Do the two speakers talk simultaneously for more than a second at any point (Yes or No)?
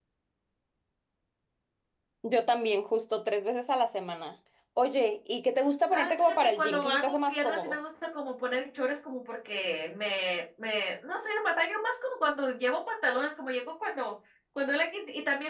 Yes